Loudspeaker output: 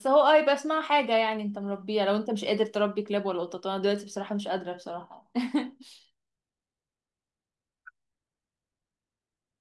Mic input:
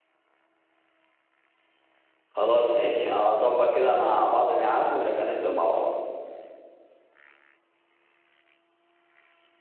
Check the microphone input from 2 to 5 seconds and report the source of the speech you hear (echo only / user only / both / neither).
user only